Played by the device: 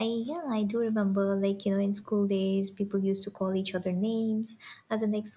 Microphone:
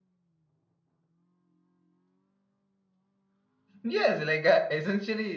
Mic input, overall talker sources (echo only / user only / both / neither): user only